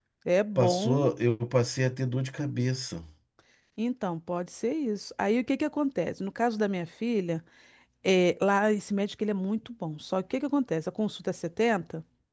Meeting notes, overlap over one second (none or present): none